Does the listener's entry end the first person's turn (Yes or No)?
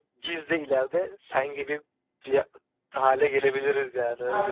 Yes